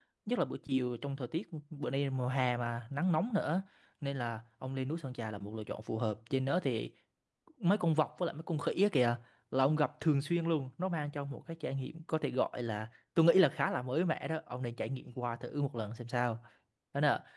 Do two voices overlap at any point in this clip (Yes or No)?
No